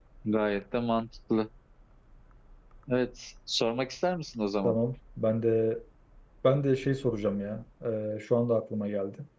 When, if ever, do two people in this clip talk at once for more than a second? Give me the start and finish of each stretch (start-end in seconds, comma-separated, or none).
none